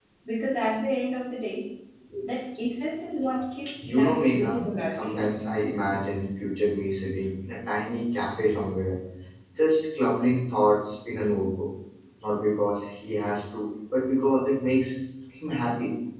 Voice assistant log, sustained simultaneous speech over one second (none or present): present